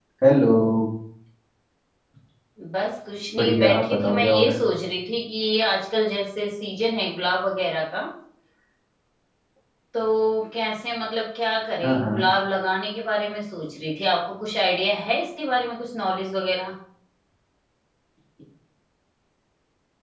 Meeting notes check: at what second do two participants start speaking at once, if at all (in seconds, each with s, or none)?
3.4 s